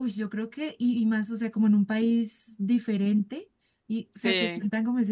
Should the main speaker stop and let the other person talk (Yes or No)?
No